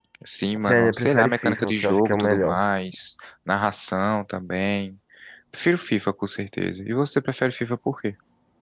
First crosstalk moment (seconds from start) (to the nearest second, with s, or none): 1 s